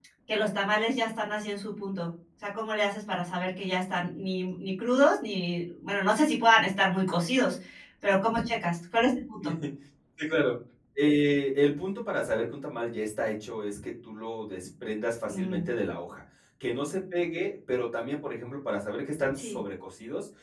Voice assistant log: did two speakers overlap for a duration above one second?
No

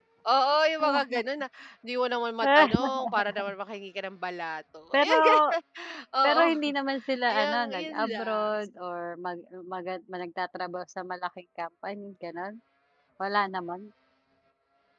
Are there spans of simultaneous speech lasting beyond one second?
Yes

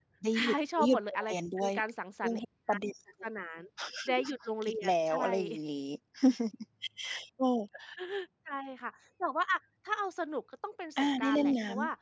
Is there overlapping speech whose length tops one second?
Yes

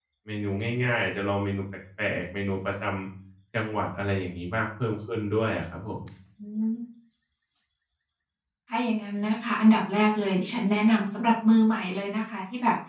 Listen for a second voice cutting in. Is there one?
No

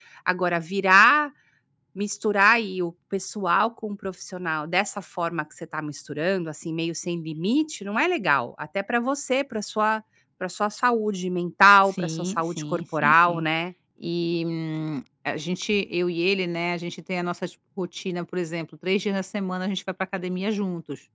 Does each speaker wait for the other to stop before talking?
No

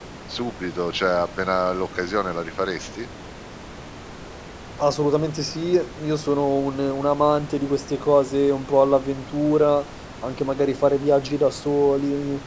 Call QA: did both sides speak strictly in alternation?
Yes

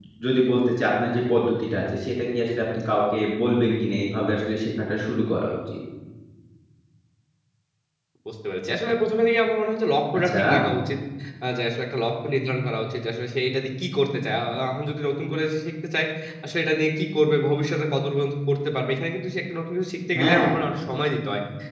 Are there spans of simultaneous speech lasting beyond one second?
No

